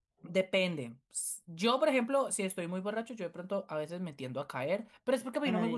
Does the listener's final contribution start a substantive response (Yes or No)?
No